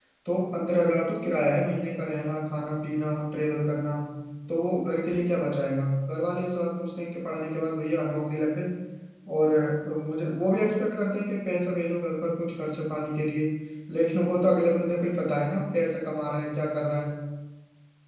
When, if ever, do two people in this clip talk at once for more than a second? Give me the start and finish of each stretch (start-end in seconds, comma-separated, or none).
none